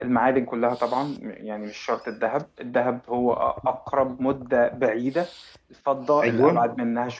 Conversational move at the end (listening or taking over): listening